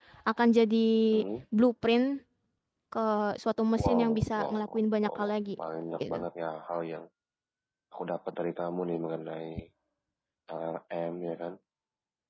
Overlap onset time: 4 s

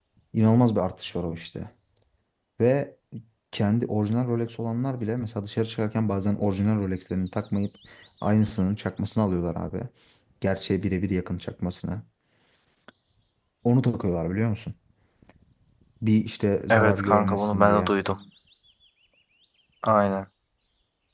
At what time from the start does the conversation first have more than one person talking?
17 s

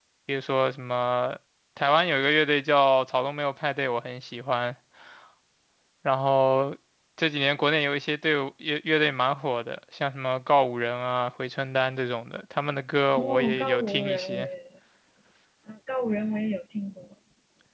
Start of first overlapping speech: 13 s

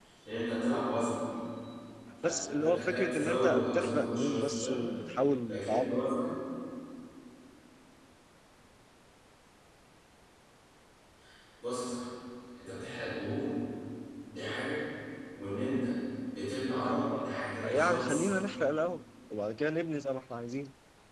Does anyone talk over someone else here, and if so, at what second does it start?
2 s

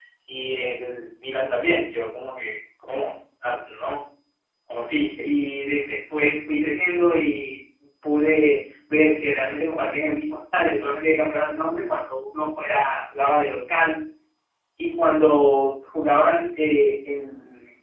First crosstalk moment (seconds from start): none

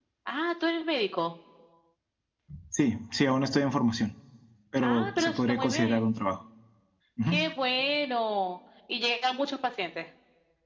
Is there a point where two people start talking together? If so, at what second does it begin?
5 s

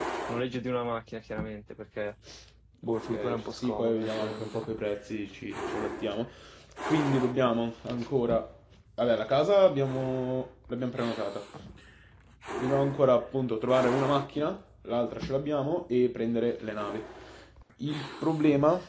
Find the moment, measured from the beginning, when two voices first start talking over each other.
3 s

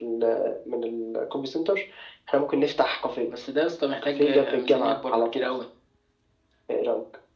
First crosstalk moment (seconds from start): 4 s

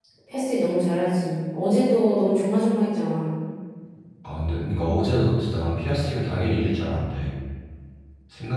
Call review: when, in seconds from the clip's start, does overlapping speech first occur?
none

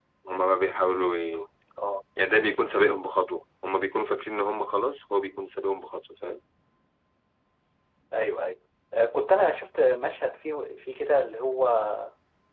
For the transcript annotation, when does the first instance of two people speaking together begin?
none

